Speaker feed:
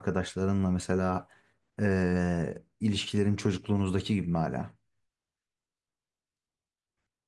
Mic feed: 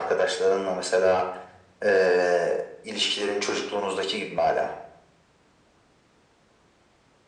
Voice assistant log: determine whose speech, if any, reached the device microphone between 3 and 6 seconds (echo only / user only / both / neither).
echo only